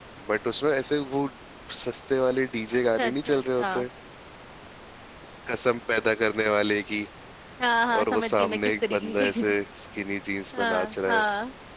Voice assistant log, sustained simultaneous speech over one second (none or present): present